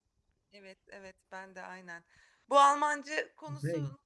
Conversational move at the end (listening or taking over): listening